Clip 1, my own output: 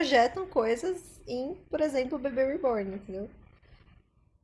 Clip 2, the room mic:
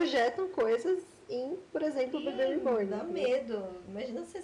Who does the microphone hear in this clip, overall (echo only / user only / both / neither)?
both